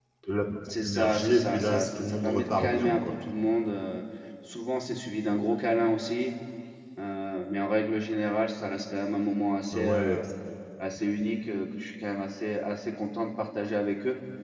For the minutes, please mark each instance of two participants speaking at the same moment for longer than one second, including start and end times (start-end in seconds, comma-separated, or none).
0.8-3.1